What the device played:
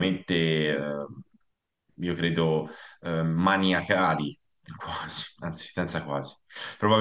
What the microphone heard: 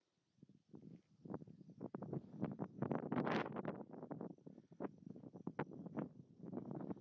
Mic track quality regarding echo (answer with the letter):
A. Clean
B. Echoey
A